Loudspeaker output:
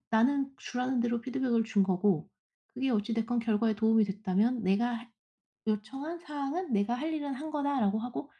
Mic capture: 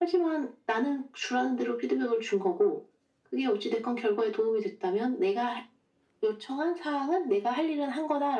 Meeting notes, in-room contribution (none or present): none